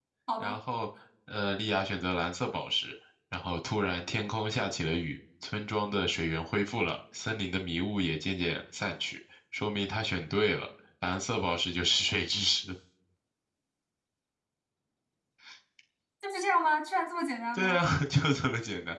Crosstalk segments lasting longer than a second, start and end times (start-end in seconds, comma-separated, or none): none